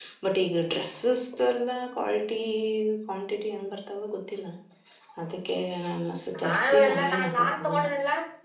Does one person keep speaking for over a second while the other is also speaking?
Yes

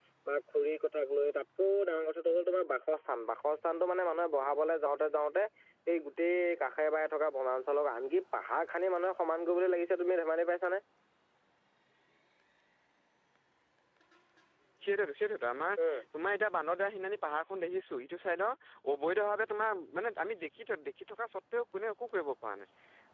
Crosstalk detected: No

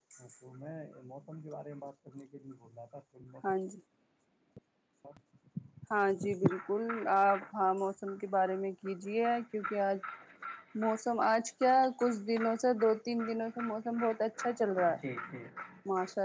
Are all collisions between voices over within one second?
Yes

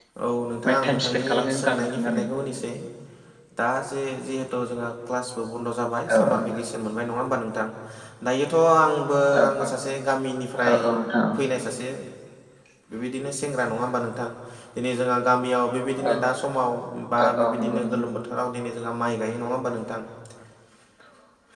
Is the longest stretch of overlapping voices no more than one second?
No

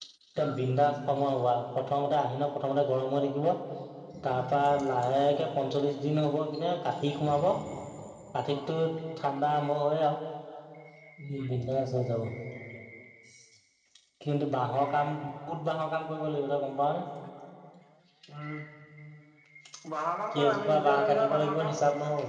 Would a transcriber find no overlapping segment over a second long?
No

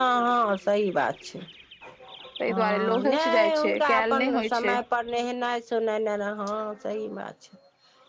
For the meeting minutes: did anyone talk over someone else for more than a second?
Yes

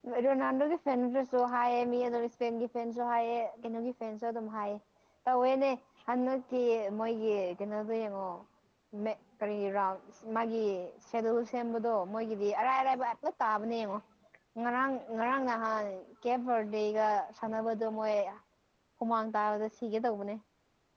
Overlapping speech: No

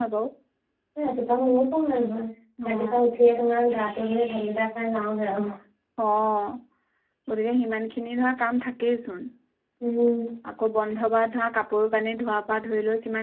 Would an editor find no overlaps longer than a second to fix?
Yes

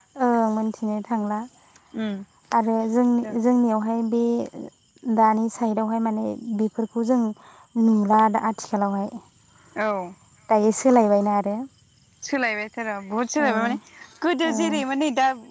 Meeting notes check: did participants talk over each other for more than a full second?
No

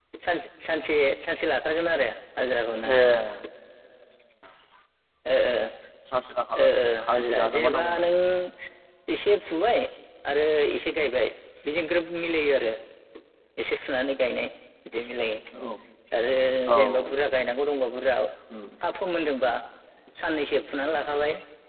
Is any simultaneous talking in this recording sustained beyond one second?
Yes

